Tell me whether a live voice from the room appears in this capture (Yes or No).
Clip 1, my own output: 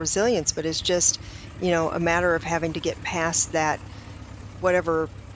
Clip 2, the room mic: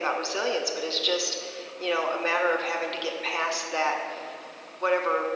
No